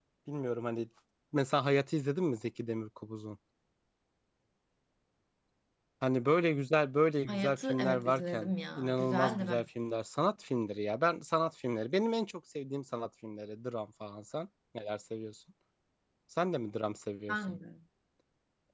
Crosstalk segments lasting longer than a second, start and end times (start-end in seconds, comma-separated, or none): 7.3-9.7